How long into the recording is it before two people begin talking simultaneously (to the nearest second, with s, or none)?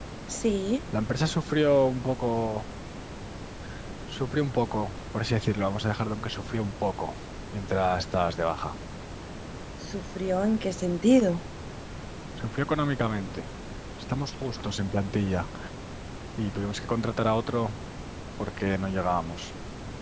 none